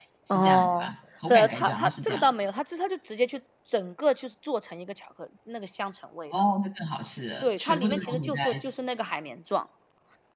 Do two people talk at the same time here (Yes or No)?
Yes